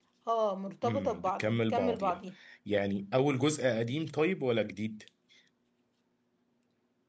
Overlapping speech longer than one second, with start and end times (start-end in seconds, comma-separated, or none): 0.8-2.2